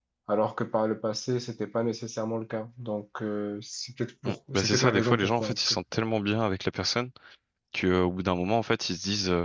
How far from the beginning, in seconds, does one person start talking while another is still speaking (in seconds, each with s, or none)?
4.2 s